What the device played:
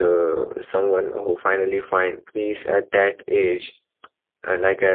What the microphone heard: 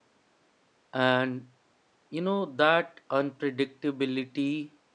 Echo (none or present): none